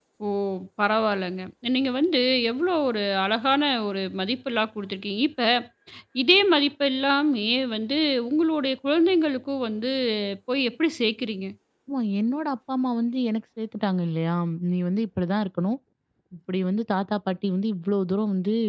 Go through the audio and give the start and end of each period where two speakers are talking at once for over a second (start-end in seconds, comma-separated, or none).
none